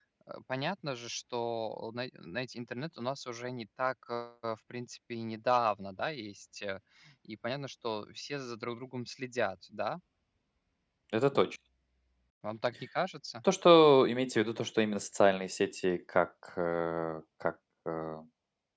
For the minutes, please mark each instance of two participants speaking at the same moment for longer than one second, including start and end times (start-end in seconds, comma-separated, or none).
none